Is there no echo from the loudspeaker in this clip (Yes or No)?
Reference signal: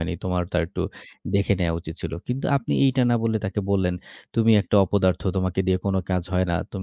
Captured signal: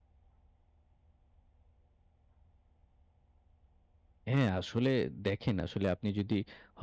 Yes